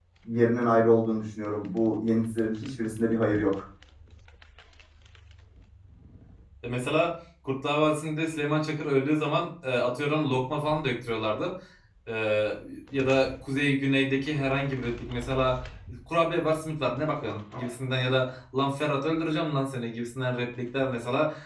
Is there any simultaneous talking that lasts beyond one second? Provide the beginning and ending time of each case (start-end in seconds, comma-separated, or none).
none